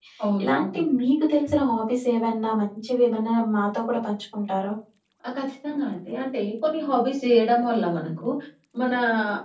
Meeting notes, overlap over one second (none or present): none